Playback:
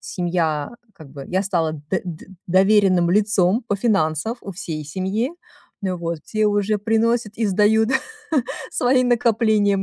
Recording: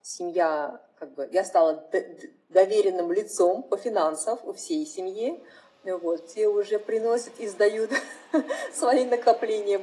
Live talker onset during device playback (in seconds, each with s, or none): none